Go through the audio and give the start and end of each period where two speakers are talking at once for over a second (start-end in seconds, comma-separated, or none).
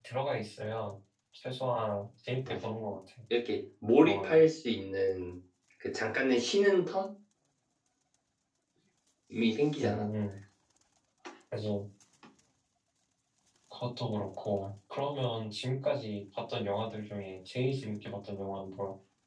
none